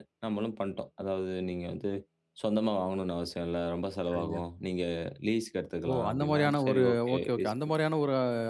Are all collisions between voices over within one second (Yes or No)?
No